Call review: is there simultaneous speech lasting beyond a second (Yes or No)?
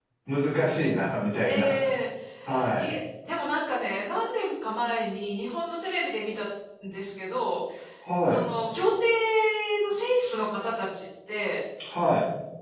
No